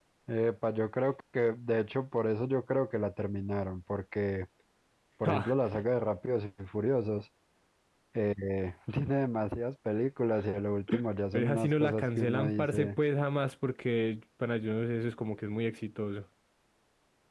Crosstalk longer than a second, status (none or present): present